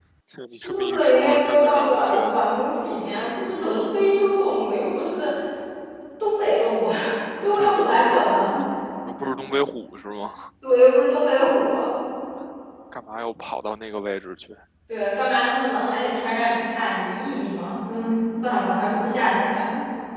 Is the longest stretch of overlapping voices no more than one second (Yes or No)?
No